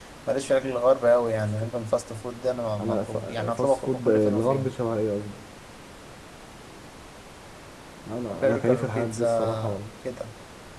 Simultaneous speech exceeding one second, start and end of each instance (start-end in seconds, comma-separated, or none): 2.8-4.7, 8.3-9.8